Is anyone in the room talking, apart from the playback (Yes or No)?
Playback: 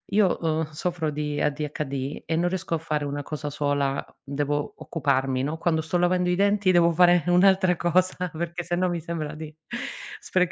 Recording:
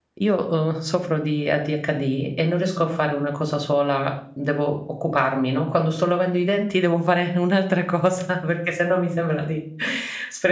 No